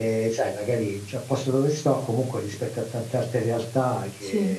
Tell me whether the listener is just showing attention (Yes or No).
Yes